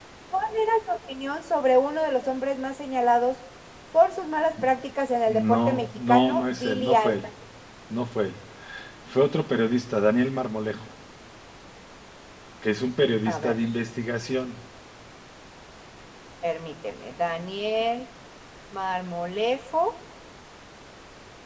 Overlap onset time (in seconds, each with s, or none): 5.5 s